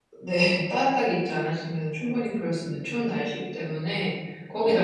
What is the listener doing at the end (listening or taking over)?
listening